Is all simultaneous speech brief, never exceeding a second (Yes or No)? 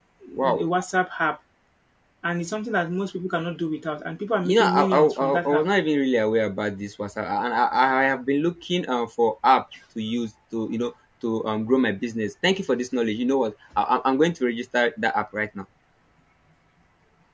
No